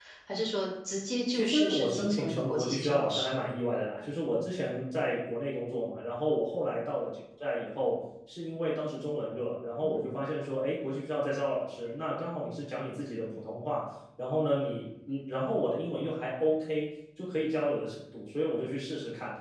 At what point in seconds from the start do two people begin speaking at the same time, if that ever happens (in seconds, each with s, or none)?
1.3 s